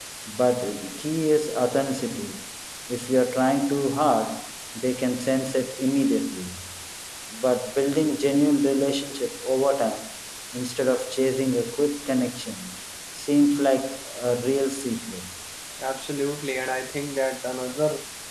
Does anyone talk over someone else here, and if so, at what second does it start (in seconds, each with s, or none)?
none